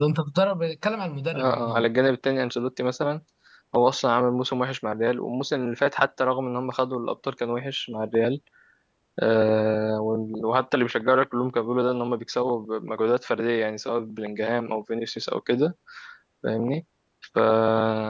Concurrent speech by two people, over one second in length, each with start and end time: none

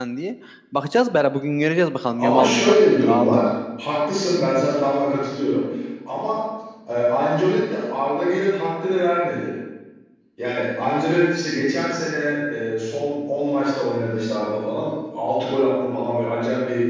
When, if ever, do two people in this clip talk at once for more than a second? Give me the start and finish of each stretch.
2.2-3.5

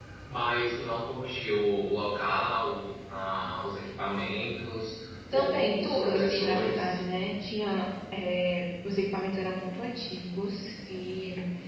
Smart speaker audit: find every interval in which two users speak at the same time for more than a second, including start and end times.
5.3-6.9

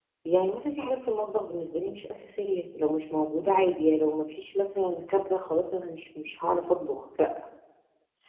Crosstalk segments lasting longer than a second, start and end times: none

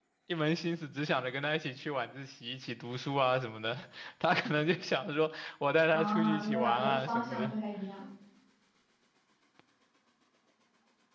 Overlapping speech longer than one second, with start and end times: 5.9-7.5

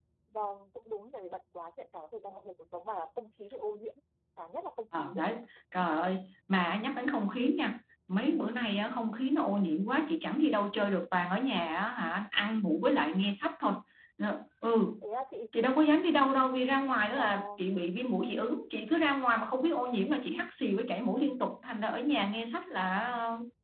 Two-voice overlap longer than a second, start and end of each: none

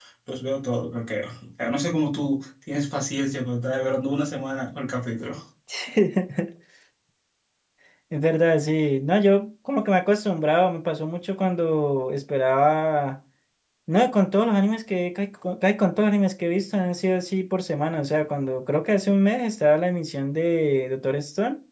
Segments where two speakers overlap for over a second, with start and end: none

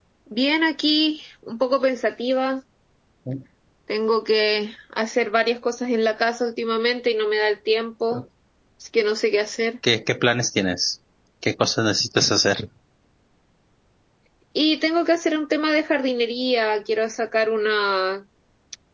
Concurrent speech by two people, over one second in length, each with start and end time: none

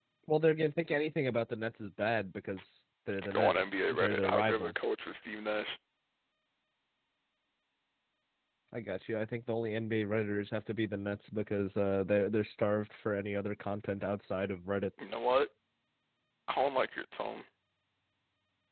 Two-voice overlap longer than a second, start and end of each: 3.1-4.9

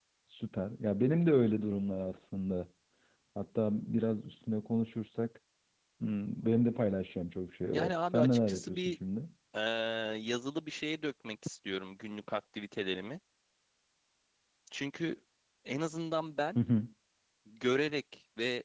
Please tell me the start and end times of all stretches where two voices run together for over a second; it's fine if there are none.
7.7-8.9

